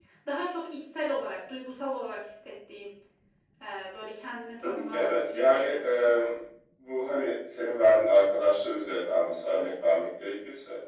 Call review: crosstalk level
present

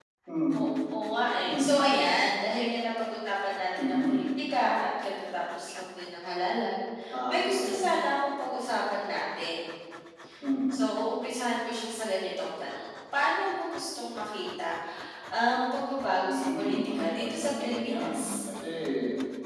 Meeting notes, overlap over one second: present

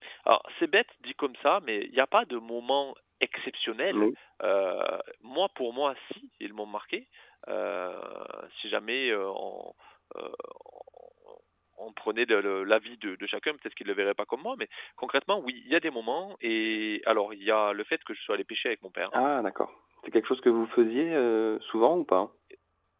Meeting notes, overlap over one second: none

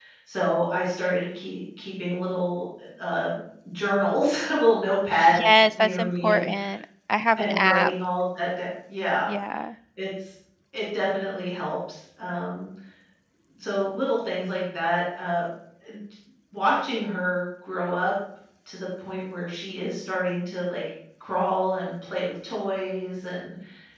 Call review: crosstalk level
present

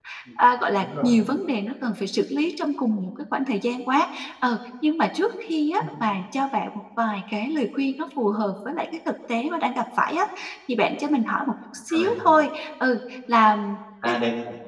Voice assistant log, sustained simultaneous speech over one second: none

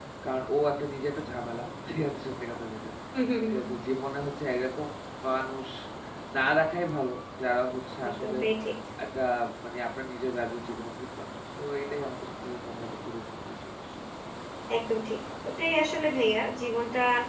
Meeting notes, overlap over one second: none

